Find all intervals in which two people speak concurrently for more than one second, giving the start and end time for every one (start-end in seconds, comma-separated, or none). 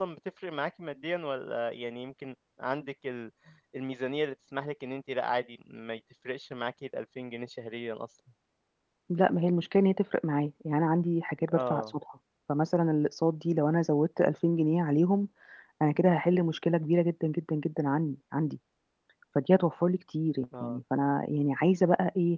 none